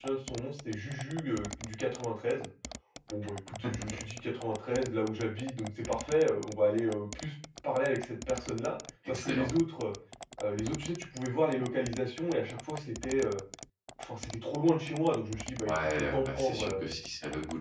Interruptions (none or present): present